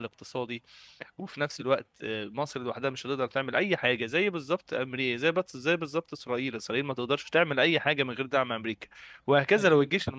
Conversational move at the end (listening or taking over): listening